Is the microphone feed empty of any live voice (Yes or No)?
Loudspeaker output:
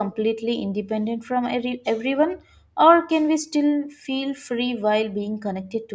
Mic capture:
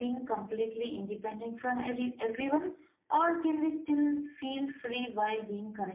Yes